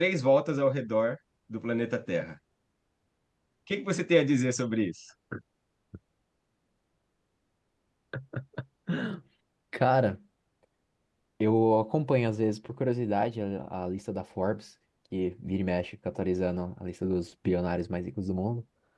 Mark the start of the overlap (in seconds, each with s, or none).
none